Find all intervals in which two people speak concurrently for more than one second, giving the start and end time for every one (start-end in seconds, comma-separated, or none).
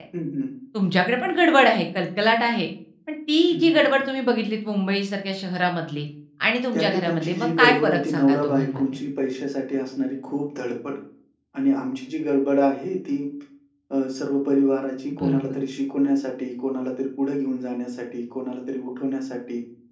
6.7-8.8